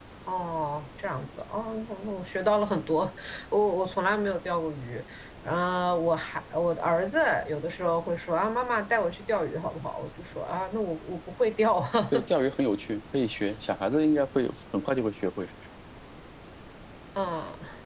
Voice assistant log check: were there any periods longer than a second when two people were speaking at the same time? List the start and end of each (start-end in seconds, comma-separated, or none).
none